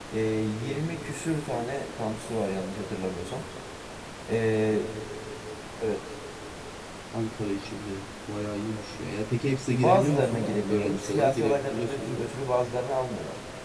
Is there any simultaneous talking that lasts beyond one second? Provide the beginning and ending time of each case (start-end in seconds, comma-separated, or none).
9.7-12.2